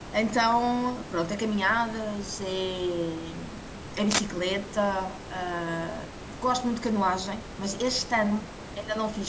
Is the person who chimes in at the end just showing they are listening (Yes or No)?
Yes